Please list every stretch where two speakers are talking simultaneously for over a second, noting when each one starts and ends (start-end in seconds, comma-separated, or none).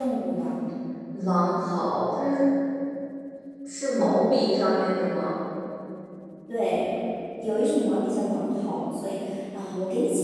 none